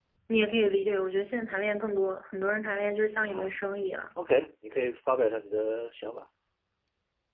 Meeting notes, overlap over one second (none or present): none